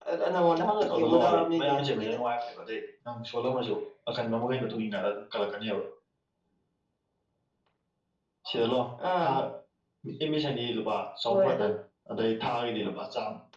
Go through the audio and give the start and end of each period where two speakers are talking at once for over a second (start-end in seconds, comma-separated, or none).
0.9-2.2